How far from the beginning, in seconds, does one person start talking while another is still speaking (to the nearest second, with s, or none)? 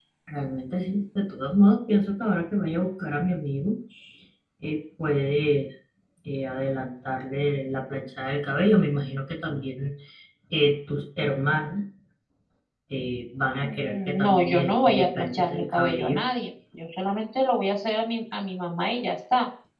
14 s